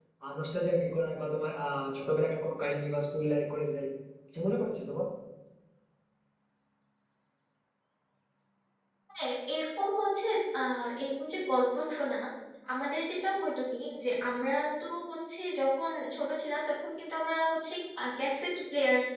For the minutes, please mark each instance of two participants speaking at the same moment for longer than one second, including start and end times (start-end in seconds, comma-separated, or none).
none